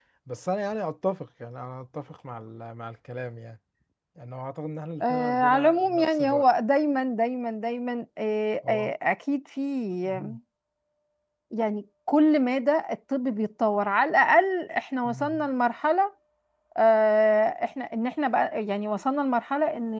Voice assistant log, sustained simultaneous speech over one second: present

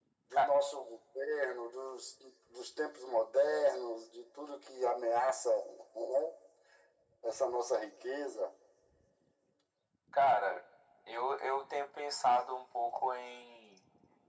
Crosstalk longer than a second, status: none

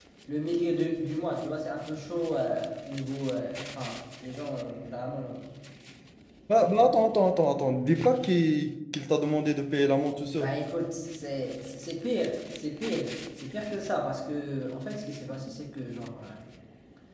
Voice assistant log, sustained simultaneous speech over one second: none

